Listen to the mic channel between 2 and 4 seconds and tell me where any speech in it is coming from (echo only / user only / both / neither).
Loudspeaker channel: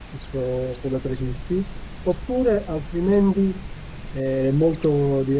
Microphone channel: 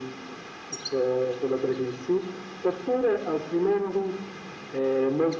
echo only